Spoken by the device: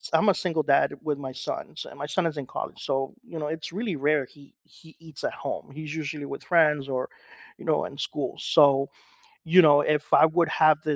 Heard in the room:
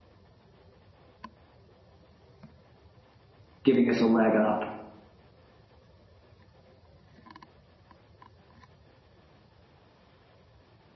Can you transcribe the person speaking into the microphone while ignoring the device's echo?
giving us a leg up?

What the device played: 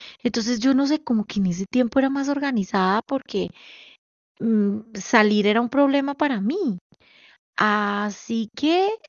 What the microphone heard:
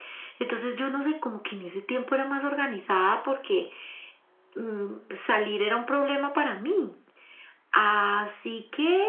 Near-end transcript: none

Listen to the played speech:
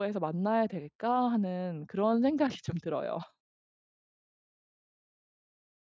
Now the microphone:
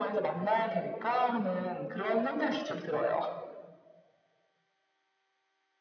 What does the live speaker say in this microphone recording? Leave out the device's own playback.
none

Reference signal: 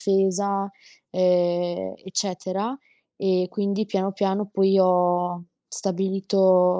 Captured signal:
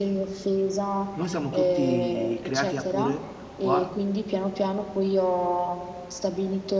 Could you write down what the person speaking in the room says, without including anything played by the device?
noi siamo tutti creati a pure qua

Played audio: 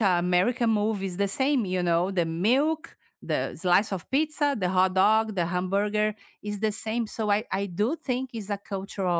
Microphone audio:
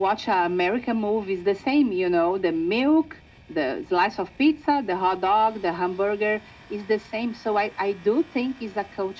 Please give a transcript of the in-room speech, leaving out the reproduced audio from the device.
none

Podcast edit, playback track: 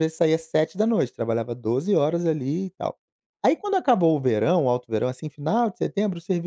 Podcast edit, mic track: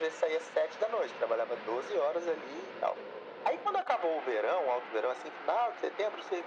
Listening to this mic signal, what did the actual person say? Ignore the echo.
none

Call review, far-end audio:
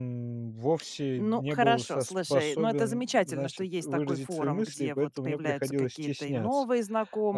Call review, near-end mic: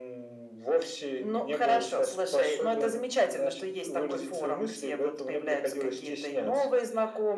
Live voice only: none

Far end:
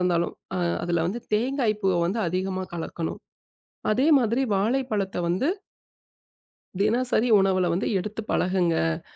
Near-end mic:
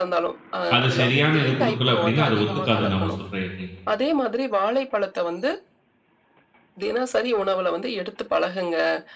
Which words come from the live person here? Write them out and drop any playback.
அது சரியான இது குடுக்கல அப்டின்னா, அது ஒத்துக்காது நாம சொல்ற எதையுமே.

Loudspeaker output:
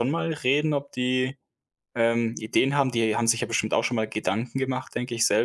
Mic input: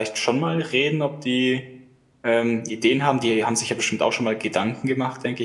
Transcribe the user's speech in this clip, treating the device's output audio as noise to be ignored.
none

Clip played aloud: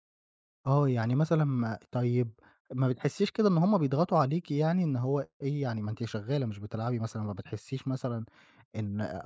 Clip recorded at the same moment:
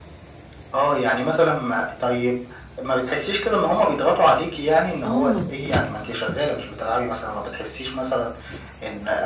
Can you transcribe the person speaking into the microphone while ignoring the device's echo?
آه.

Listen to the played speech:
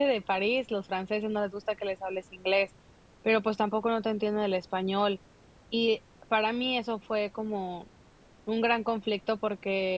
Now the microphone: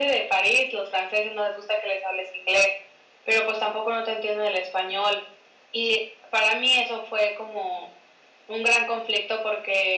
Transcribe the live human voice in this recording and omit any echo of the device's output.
none

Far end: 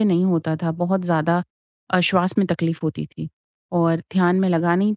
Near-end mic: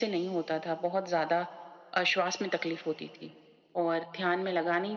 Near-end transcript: none

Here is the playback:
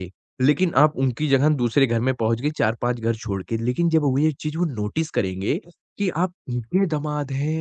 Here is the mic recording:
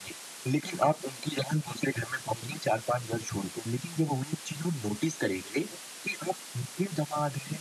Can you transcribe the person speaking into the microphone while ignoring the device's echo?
none

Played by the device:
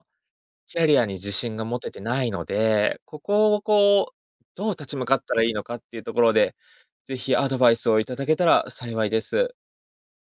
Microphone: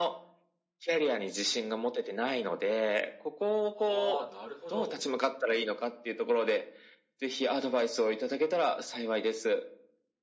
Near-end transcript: ああ、なるほど。

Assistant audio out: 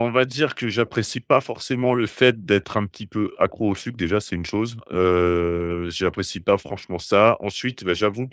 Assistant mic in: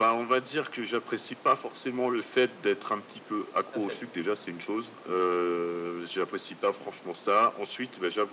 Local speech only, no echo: Tout à fait.

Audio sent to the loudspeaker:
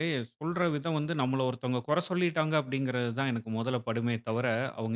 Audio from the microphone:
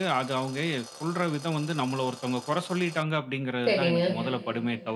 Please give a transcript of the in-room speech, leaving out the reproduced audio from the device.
சரிங்க.

